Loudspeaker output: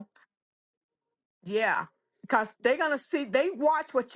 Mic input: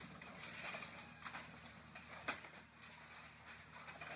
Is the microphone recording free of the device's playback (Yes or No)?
Yes